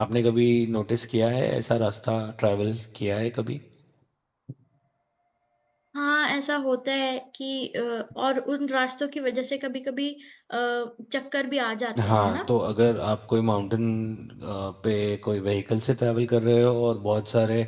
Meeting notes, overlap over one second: none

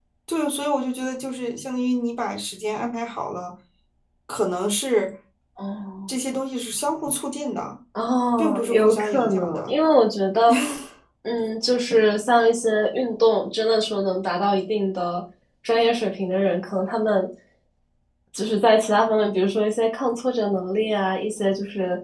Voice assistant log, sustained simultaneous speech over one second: present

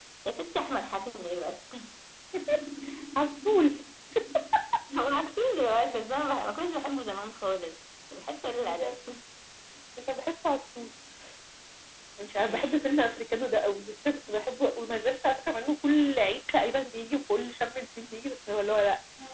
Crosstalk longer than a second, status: none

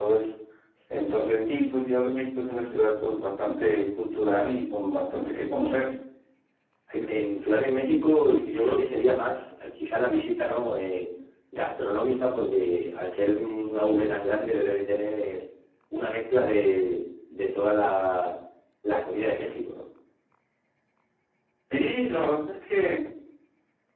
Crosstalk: none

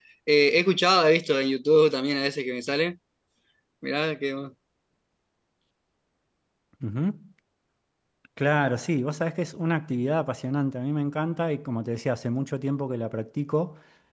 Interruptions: none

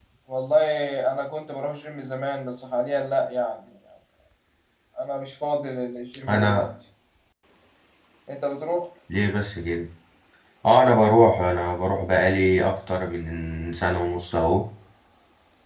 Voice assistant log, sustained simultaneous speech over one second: none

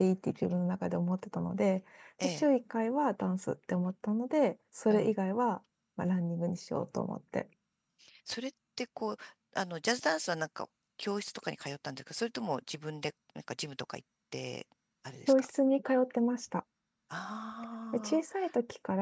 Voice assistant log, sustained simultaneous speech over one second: none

